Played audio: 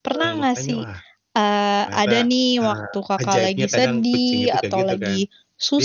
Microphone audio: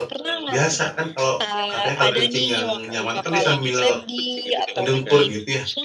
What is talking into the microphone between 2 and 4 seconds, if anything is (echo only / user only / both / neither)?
both